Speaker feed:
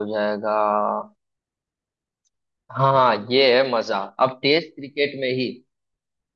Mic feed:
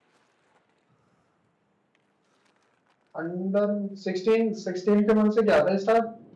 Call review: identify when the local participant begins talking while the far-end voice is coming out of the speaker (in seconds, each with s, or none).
3.2 s